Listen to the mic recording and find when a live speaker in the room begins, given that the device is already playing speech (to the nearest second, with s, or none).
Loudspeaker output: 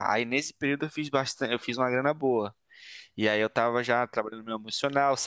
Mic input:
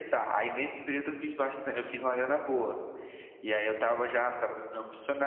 none